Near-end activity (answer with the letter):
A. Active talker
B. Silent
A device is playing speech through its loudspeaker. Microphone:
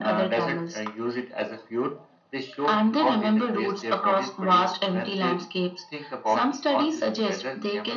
B